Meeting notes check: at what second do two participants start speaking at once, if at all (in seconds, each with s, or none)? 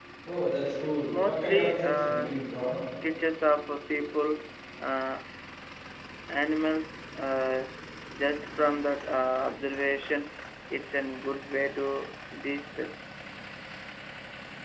1.1 s